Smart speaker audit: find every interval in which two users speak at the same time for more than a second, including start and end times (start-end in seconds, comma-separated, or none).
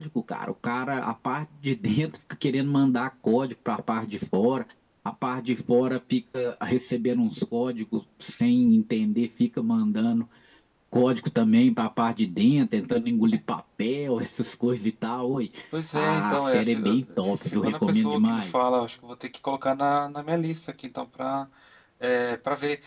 15.9-18.5